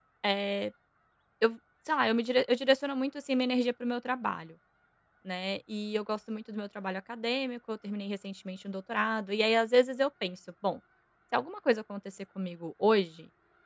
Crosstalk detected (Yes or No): No